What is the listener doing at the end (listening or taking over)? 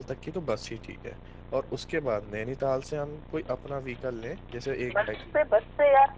taking over